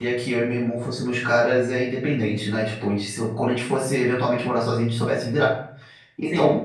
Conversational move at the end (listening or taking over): listening